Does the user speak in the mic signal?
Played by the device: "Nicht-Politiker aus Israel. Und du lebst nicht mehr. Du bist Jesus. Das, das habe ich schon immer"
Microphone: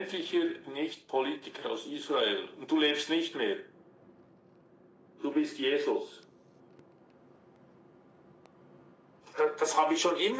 No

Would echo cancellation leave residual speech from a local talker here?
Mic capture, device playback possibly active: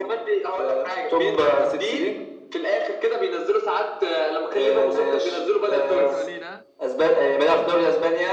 Yes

